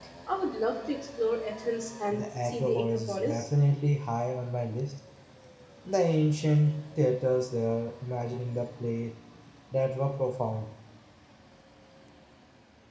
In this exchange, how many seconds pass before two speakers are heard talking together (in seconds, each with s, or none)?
2.1 s